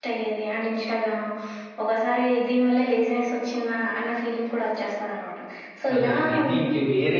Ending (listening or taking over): taking over